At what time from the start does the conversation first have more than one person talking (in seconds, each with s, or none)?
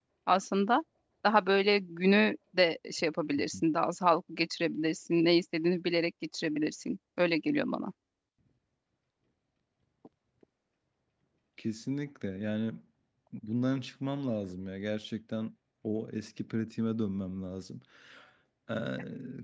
none